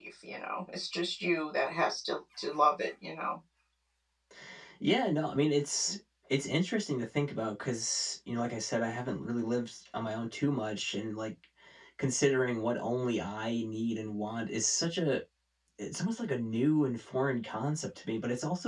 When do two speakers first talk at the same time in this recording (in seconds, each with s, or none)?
none